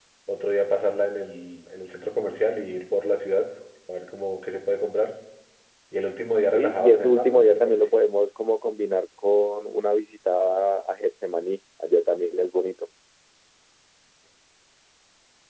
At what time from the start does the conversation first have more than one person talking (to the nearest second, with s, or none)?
7 s